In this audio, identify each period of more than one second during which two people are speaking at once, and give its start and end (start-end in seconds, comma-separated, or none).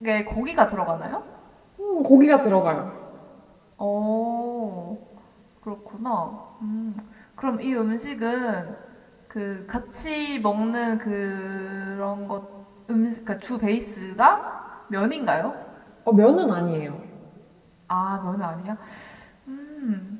none